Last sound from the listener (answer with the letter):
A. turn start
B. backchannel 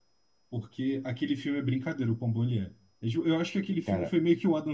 B